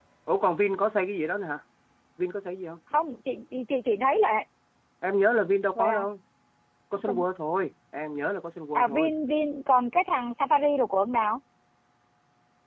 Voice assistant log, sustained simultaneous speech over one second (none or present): none